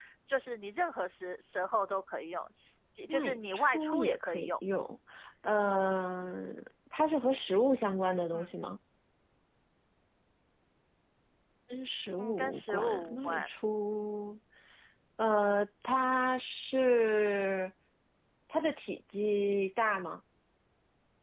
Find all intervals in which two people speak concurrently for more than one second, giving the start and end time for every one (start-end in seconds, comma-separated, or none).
3.1-4.5, 12.2-13.5